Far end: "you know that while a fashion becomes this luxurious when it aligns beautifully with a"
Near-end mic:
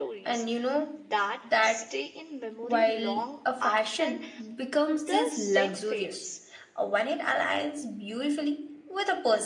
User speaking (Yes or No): Yes